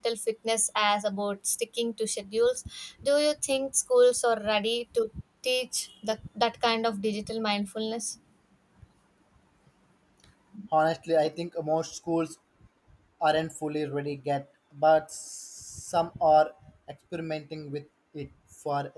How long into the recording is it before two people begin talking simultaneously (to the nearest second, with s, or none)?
none